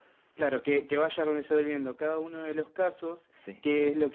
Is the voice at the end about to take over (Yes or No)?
No